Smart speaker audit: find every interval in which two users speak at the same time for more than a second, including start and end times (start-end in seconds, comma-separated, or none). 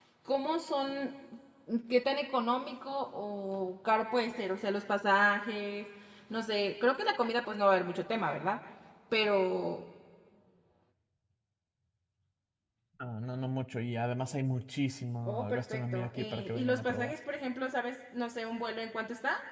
15.3-17.1